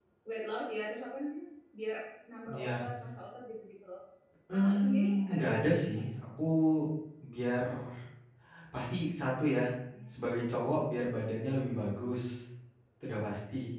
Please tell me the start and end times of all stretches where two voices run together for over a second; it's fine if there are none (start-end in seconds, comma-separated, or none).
4.5-6.0